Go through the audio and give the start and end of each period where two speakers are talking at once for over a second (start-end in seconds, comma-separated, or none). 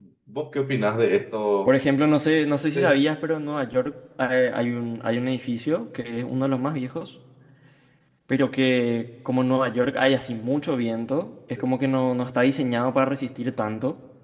none